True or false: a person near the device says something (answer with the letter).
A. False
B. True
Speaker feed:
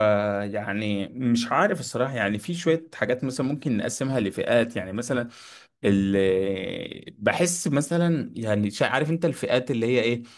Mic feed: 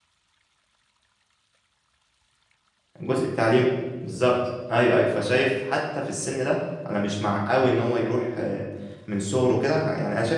B